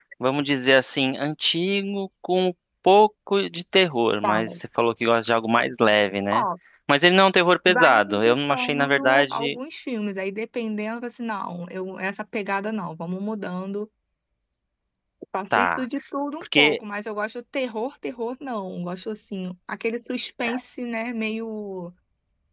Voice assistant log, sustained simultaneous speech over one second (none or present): present